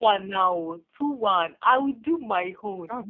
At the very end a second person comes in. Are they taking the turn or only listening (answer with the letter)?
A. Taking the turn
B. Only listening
A